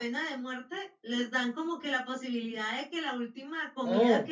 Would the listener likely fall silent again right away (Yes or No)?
Yes